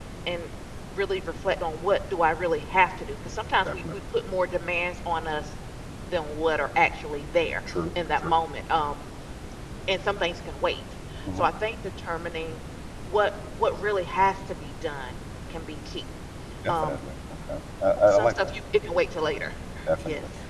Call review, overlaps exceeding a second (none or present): none